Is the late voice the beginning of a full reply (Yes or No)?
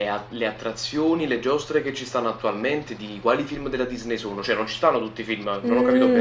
Yes